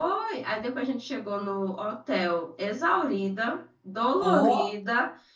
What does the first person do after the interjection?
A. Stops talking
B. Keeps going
B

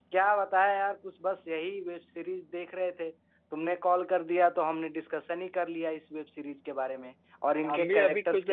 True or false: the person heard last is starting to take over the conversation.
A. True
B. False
A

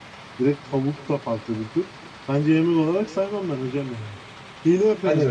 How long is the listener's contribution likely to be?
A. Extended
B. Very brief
A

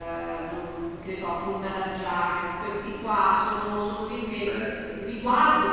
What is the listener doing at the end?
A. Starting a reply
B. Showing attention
B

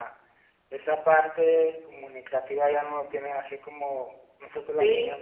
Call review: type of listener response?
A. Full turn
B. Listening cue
A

